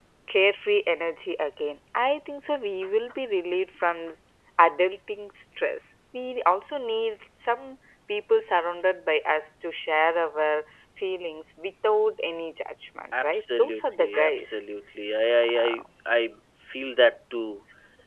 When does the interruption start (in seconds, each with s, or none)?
13.2 s